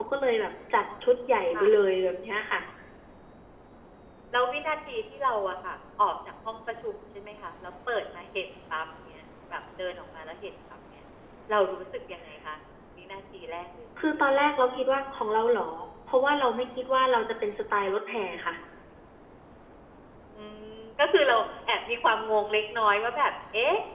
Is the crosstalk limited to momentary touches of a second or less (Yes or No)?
Yes